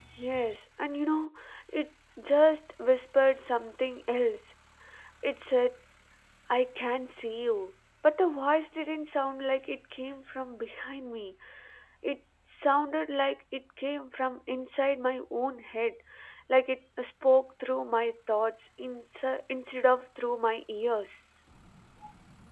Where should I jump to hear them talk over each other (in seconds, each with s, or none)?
none